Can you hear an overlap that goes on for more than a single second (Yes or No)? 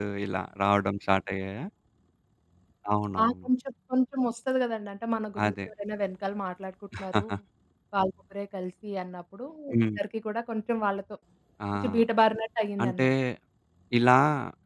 No